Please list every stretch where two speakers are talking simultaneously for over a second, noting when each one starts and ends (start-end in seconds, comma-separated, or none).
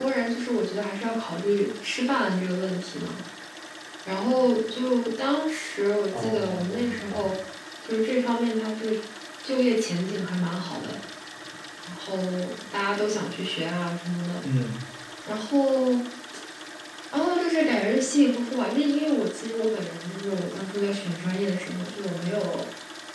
6.1-7.3